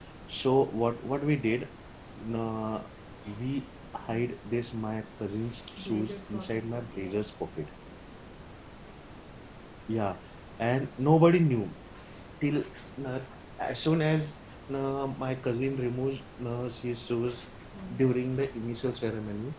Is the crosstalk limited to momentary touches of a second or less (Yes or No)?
No